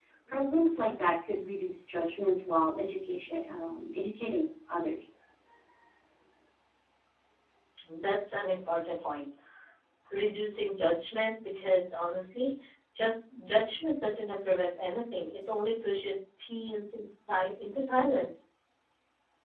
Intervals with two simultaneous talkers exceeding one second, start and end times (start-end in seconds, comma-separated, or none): none